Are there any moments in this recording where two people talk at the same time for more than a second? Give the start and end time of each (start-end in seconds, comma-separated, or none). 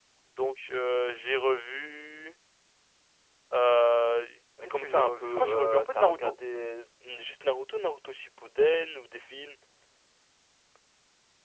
4.7-6.3